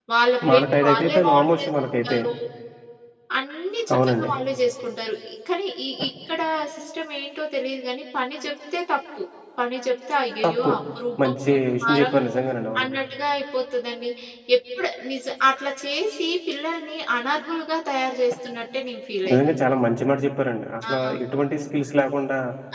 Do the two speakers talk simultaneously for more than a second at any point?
Yes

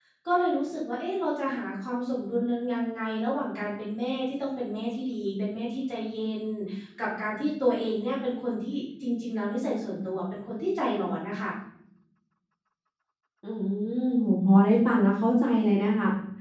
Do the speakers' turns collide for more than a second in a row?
No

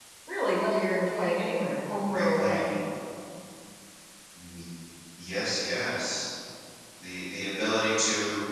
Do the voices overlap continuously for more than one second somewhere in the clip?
No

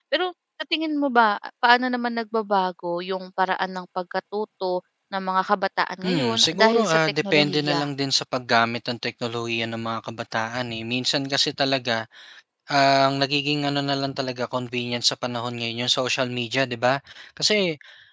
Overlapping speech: Yes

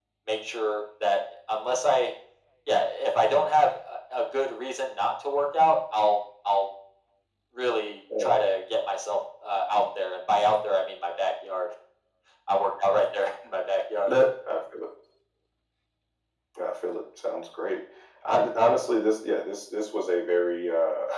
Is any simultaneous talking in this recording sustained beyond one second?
No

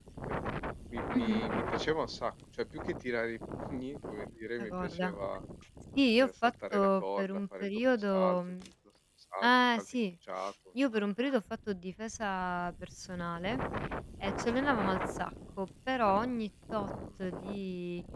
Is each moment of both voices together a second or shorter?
No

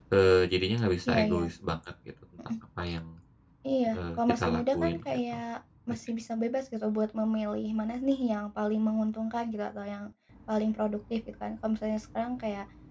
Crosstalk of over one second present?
Yes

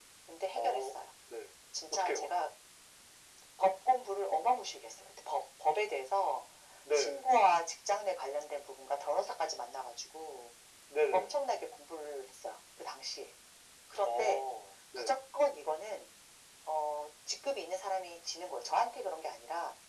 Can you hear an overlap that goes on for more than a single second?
No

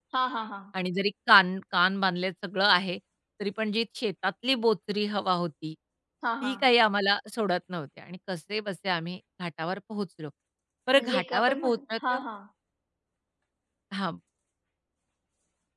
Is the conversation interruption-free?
No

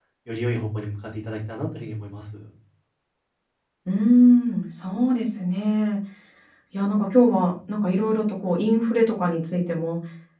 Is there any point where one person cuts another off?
No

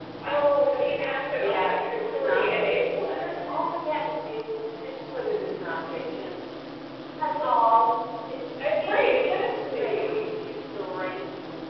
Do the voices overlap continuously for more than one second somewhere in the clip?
Yes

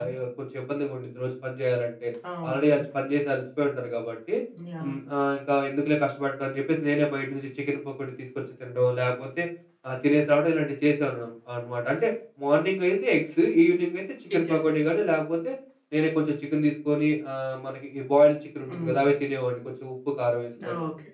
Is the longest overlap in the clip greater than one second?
No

